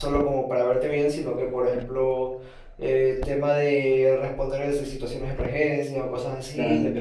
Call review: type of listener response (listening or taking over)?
listening